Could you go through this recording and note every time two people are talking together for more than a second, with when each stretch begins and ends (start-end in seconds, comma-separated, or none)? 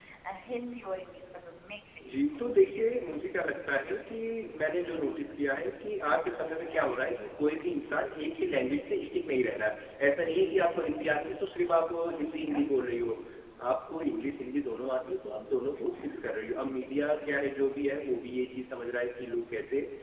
none